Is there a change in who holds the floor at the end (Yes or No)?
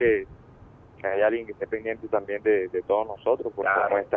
No